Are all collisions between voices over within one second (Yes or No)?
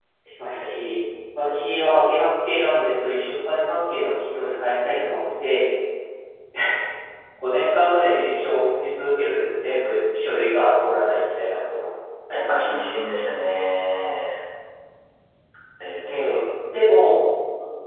Yes